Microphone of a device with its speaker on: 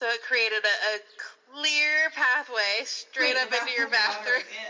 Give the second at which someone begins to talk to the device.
3.2 s

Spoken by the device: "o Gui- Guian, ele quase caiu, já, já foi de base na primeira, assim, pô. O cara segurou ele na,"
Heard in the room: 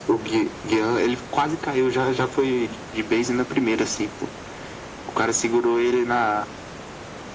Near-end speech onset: none

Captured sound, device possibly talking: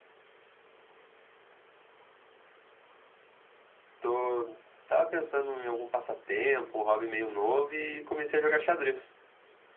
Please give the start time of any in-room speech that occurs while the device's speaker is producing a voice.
4.0 s

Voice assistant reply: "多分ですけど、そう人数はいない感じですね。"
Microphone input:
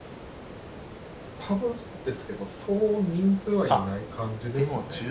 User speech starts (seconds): 3.7 s

